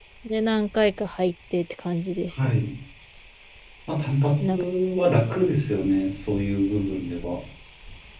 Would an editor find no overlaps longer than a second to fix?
Yes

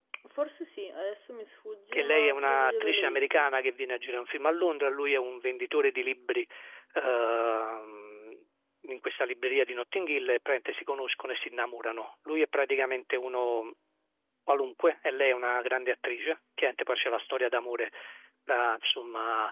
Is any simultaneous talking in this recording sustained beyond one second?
Yes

